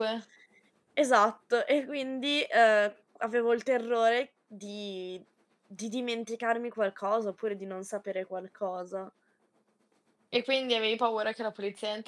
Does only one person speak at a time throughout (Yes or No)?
Yes